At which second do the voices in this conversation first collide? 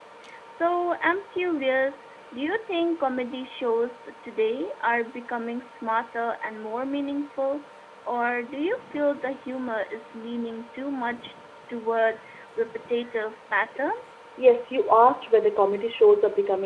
none

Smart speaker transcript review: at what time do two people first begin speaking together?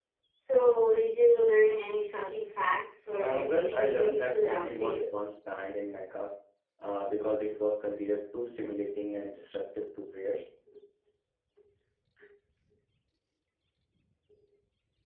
3.2 s

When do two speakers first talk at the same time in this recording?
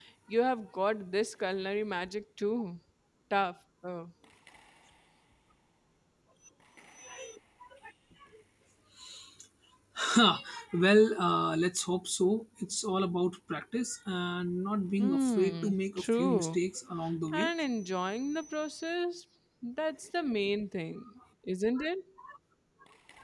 15.0 s

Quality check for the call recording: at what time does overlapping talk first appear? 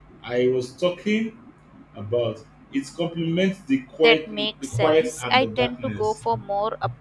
4.0 s

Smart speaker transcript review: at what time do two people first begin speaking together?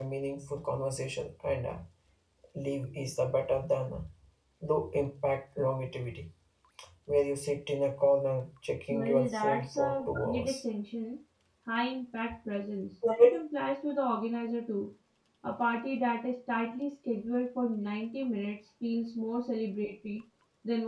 8.9 s

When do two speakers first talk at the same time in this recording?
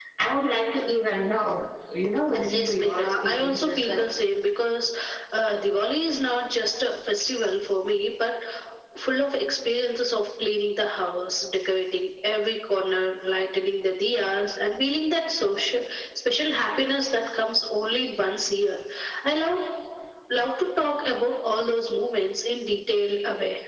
2.4 s

